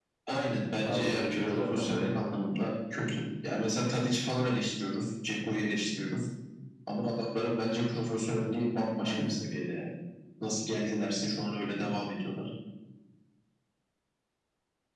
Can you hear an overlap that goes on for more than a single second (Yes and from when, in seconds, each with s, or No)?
Yes, from 0.8 s